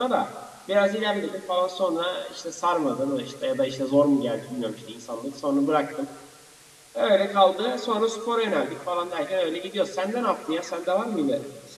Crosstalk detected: No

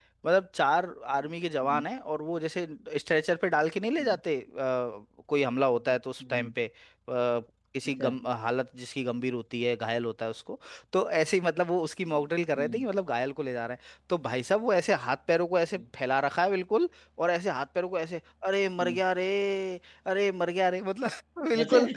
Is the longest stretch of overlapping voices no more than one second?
Yes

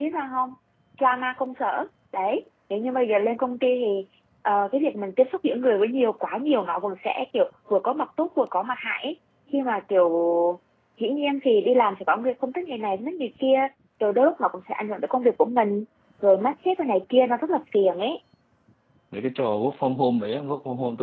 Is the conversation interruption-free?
Yes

